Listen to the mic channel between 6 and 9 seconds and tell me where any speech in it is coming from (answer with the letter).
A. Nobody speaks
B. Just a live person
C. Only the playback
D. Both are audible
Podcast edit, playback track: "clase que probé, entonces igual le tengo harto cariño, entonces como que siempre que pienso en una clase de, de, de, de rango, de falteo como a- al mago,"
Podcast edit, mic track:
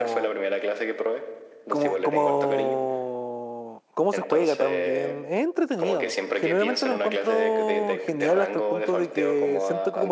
D